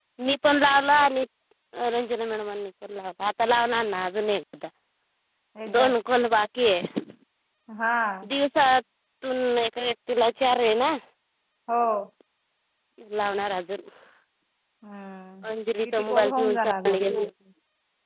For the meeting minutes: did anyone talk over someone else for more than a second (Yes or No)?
Yes